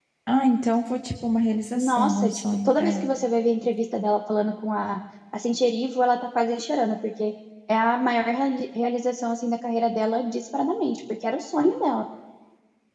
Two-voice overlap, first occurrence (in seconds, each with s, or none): 1.8 s